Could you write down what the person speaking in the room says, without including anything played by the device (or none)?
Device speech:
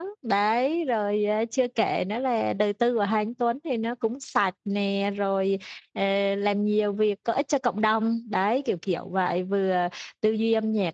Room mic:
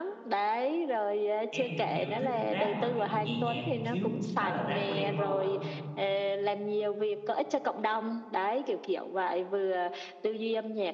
em thì kiểu thích rap mà kiểu nhẹ nhàng một xíu đó là rap của Đen Vâu á